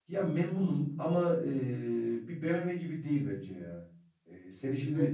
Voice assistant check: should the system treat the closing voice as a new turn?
No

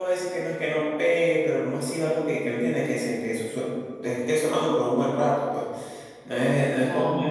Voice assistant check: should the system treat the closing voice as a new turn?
No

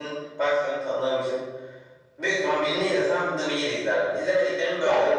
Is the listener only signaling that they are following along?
No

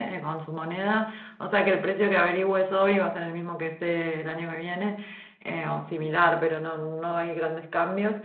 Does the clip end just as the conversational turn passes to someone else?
No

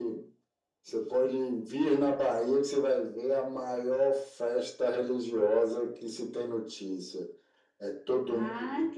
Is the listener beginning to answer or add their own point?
Yes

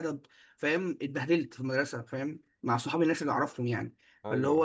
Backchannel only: Yes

